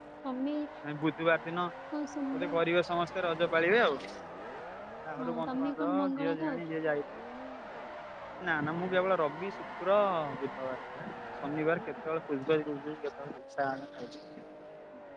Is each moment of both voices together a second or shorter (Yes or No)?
No